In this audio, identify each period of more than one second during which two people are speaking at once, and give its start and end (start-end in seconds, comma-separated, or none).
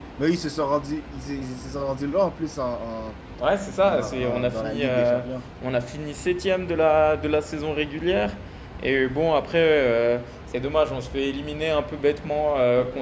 3.9-5.2